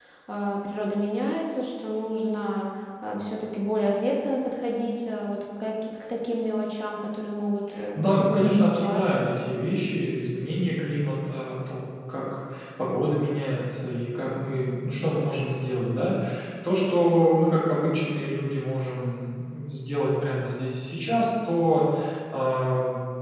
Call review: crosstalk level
present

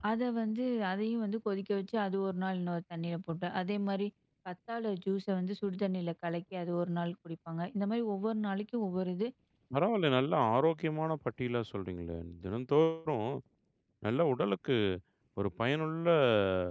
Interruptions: none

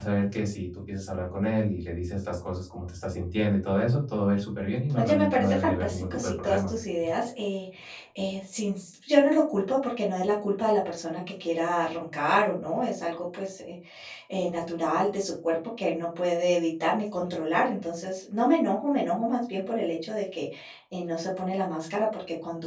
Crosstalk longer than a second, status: present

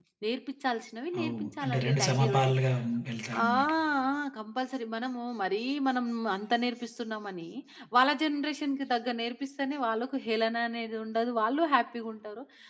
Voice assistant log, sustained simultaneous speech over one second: present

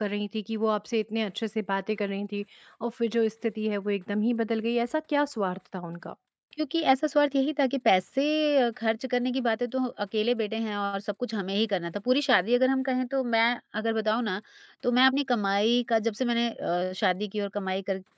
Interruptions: none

